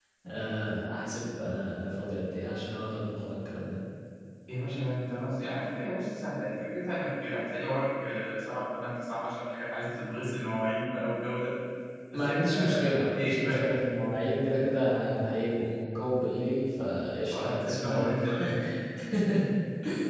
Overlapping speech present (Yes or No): Yes